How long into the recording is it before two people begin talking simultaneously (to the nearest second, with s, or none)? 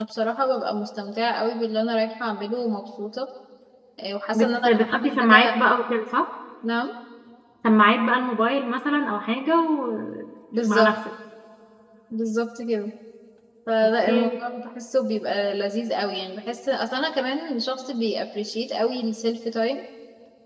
4 s